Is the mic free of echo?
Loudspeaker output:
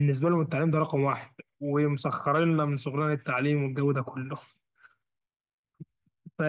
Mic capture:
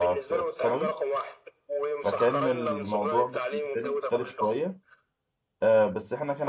No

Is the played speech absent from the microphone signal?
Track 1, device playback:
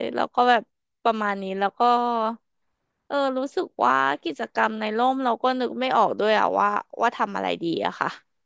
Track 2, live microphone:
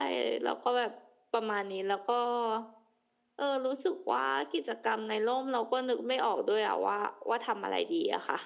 No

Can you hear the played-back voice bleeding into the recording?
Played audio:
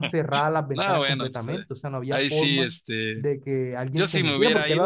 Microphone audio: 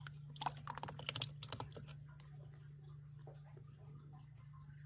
No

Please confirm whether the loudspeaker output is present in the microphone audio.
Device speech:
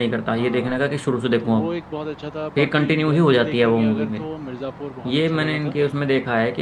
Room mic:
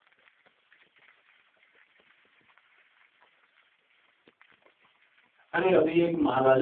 No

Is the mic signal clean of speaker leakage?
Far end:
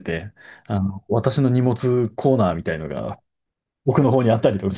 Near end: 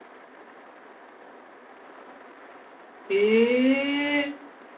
Yes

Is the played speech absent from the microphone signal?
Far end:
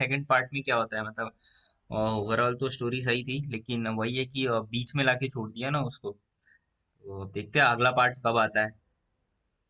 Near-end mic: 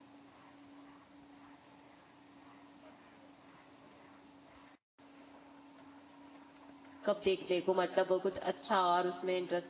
Yes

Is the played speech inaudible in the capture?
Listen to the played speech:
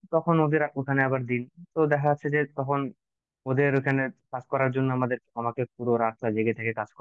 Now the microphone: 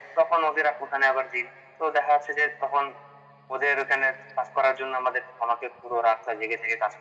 No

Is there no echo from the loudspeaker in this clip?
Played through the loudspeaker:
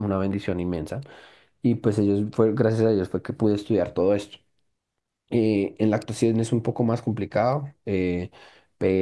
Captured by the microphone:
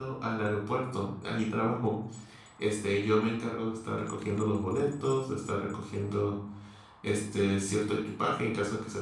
Yes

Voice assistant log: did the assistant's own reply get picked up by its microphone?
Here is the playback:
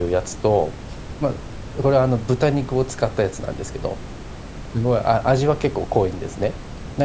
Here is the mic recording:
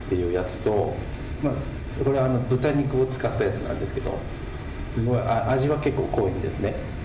Yes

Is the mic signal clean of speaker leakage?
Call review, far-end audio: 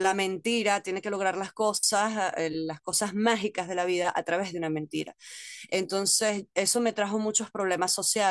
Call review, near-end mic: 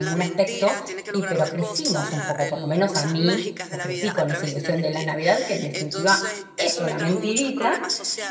No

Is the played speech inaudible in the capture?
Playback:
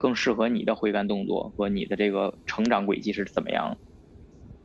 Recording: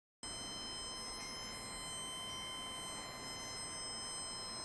Yes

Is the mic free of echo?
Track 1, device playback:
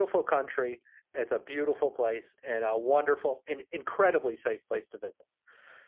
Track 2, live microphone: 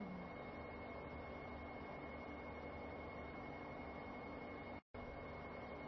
Yes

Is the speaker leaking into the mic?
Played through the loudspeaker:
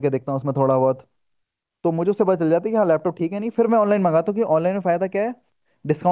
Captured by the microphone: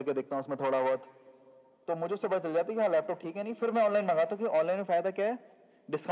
Yes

